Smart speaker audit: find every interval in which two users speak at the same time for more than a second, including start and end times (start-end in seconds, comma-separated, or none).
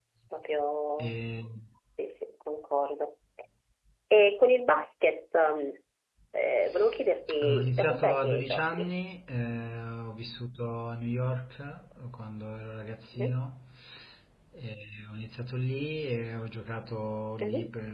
7.4-8.9